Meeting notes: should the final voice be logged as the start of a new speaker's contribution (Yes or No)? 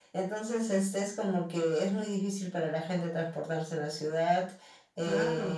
No